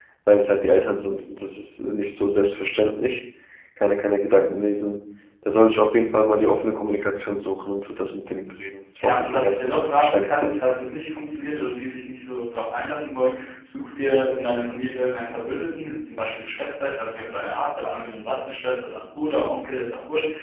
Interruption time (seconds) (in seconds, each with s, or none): 9.0 s